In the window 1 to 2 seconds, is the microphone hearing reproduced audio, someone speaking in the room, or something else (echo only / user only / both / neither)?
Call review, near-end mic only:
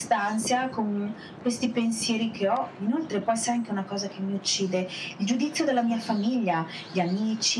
echo only